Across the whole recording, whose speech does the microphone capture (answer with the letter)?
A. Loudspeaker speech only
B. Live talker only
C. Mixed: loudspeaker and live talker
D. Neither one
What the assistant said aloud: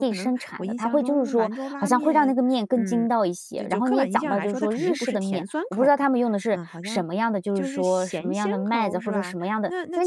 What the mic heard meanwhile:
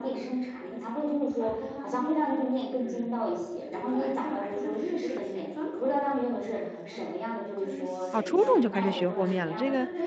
C